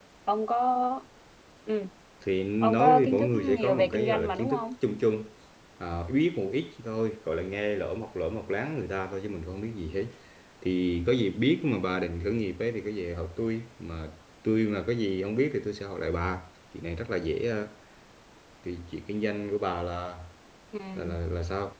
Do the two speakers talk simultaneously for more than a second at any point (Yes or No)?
Yes